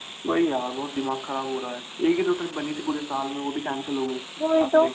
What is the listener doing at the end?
taking over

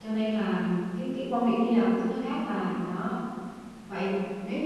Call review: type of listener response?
listening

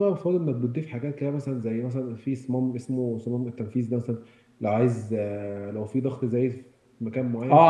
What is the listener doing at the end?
taking over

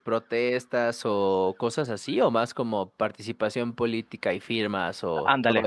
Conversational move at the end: taking over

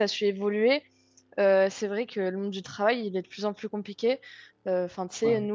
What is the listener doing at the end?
listening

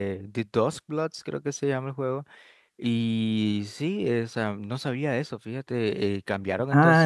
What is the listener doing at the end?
taking over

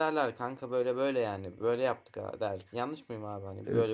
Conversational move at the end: taking over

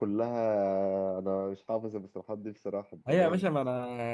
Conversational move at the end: taking over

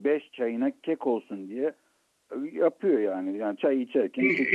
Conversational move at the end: taking over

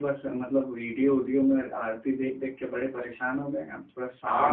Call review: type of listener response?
taking over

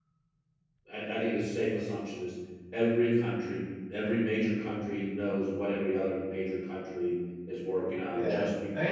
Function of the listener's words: taking over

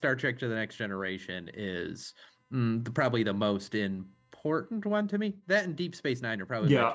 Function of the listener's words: taking over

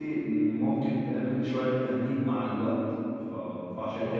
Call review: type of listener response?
listening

